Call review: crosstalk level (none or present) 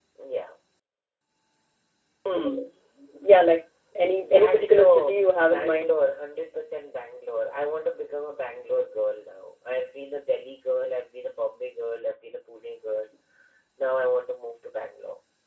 present